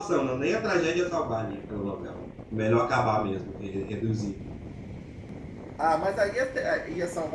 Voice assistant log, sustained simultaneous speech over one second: none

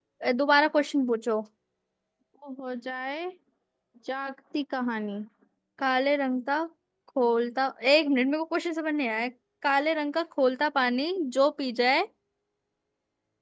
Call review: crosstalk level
none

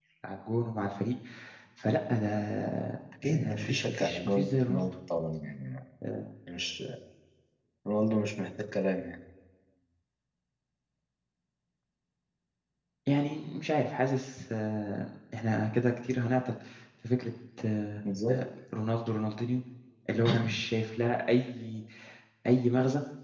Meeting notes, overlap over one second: present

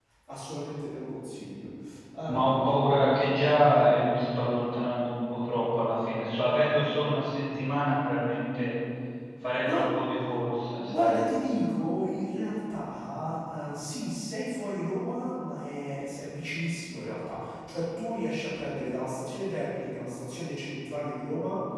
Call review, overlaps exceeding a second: none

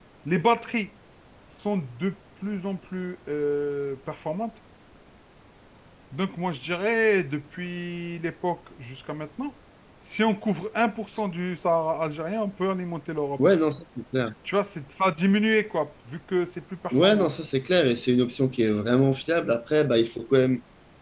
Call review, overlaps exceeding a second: none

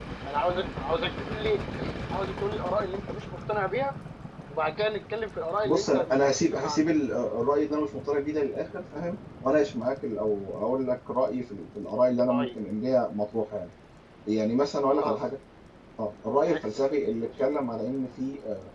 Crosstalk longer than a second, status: present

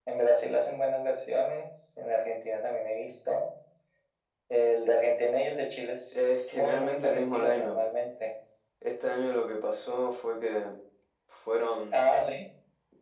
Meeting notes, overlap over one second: present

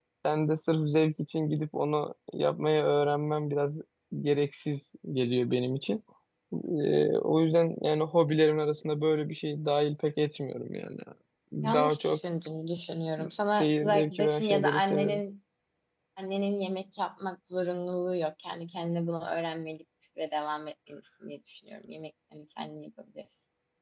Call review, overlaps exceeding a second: present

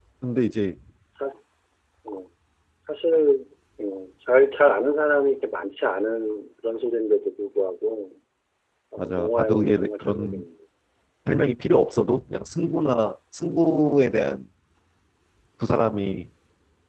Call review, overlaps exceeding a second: present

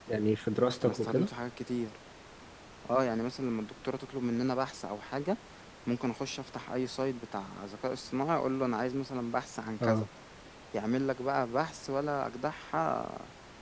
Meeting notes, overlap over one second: none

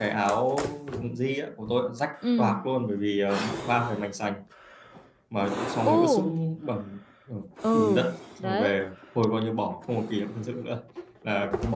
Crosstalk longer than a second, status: none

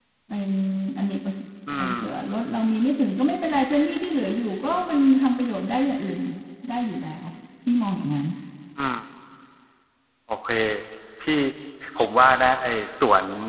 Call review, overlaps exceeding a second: none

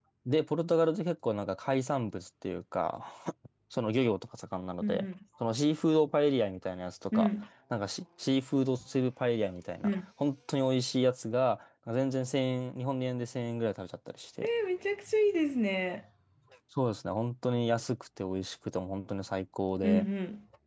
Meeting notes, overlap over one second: none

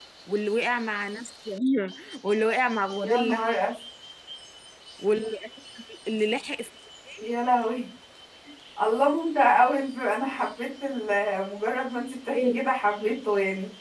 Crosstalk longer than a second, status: none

